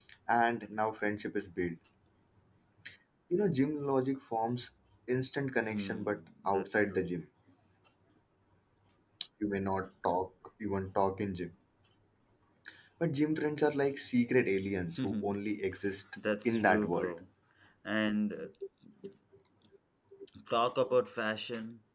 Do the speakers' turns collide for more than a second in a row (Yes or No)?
Yes